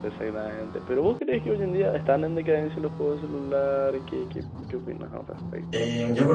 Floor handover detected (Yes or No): Yes